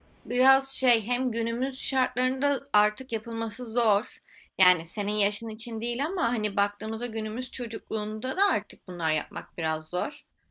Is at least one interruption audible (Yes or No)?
No